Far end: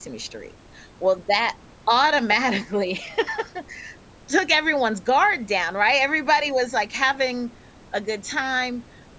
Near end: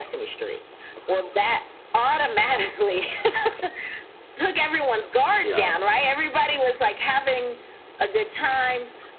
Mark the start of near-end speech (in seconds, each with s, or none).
5.4 s